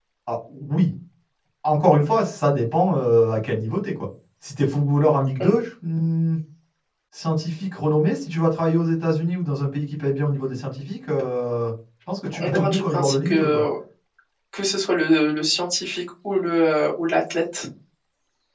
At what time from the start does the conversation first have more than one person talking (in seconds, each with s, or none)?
12.3 s